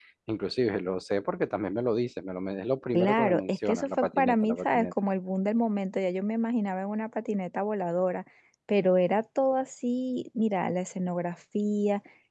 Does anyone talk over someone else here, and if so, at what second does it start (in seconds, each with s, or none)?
2.9 s